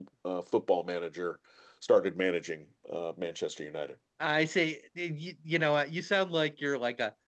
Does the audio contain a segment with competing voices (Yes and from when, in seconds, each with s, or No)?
No